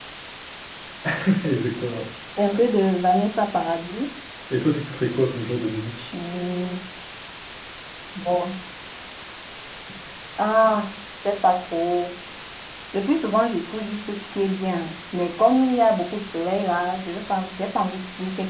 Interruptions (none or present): none